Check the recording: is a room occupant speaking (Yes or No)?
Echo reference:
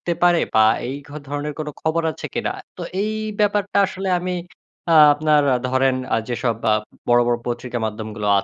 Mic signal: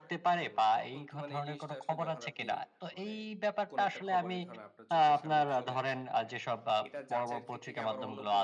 Yes